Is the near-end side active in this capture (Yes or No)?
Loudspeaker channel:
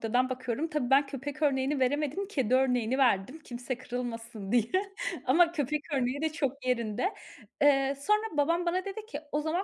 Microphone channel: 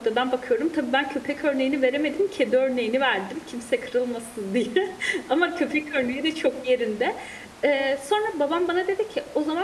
No